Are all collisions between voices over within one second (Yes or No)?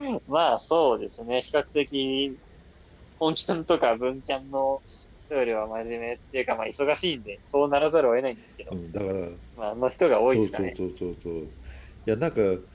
Yes